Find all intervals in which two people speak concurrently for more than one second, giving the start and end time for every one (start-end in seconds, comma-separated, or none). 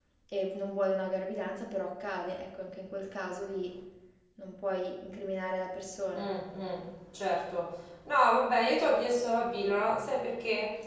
none